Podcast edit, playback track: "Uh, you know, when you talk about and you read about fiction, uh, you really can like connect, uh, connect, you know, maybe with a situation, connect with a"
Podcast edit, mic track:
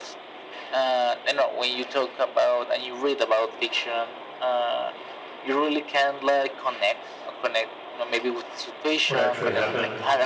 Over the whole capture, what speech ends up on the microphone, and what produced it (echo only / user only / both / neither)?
both